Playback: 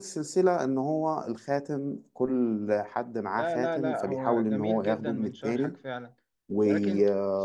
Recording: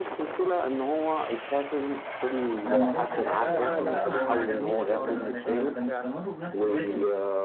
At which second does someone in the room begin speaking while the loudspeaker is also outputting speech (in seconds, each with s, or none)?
2.6 s